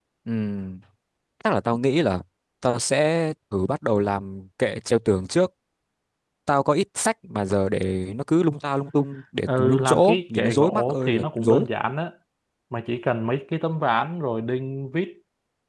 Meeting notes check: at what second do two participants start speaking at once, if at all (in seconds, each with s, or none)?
9.5 s